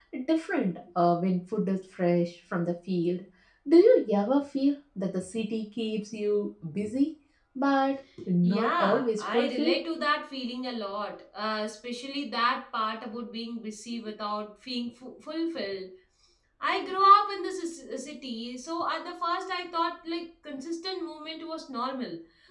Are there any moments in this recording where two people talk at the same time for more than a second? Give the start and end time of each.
8.4-9.8

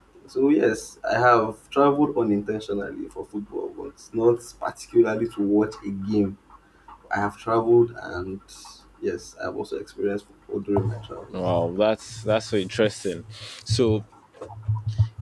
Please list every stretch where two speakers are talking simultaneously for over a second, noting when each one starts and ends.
none

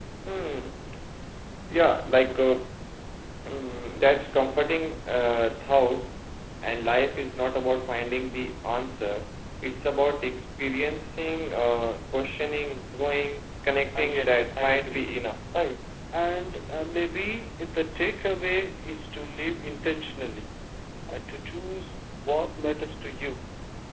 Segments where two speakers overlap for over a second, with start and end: 13.9-15.2

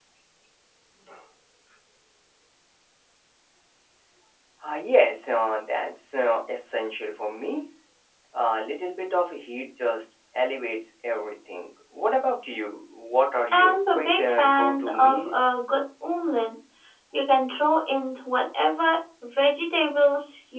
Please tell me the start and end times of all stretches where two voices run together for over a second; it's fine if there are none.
13.5-15.4

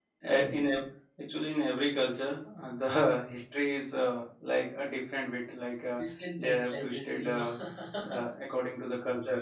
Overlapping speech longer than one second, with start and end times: 6.4-7.6

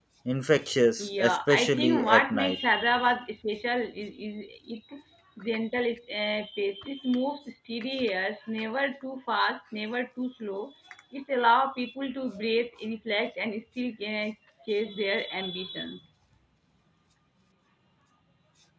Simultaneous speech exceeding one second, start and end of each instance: 1.0-2.6

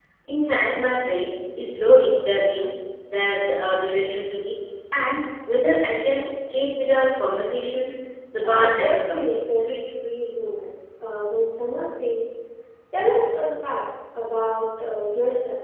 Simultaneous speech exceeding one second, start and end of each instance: 8.4-9.6

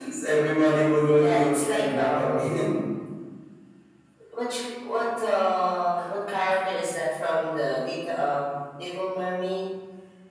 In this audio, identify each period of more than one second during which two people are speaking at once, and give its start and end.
1.2-2.4

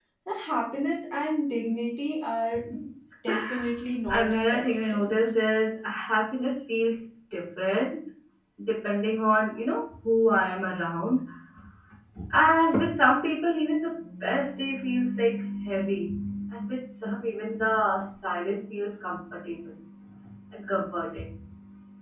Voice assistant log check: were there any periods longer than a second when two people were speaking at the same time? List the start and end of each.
4.1-5.3

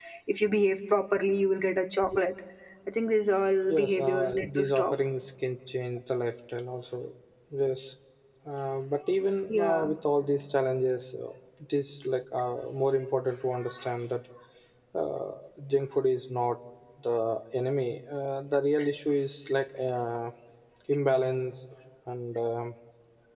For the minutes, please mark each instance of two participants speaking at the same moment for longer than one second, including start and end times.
3.7-4.9

